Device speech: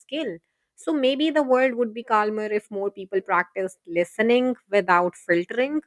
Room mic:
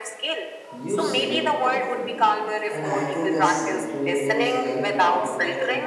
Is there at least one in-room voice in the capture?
Yes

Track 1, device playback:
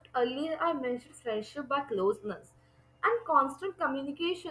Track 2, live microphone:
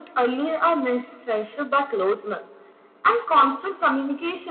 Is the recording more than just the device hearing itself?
No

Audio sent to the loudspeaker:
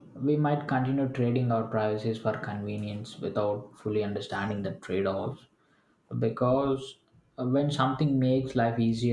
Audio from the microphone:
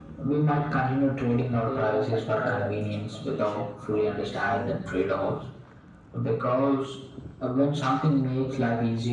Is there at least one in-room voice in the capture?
Yes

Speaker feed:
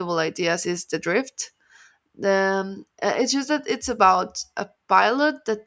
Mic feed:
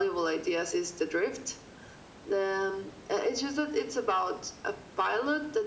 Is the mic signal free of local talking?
Yes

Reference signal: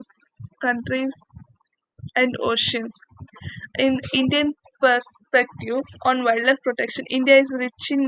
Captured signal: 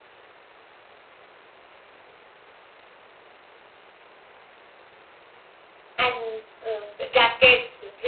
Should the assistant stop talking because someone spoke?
Yes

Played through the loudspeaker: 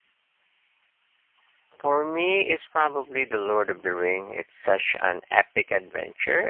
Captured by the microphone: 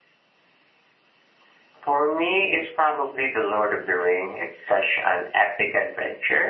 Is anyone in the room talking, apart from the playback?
No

